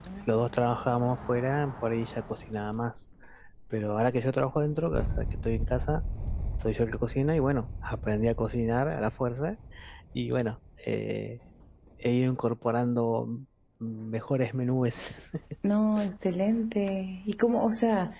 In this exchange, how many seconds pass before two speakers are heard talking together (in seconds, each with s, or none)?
none